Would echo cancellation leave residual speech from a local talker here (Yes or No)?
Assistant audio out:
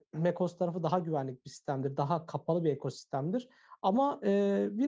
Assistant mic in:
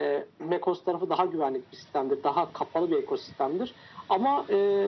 No